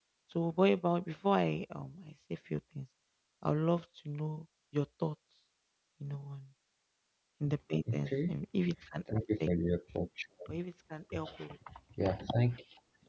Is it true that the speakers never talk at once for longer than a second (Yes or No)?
Yes